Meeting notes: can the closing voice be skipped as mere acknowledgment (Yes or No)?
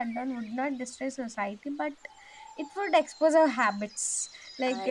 Yes